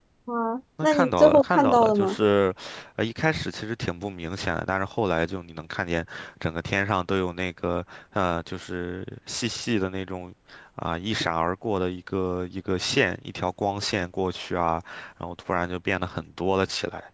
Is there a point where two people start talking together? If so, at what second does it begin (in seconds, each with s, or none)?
0.8 s